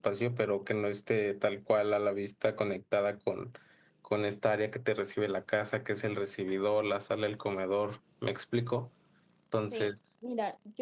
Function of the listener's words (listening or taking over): taking over